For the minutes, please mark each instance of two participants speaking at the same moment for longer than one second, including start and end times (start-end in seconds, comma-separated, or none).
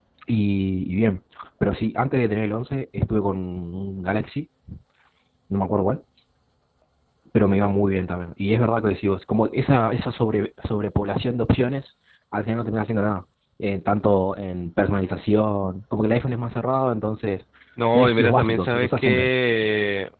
17.9-19.3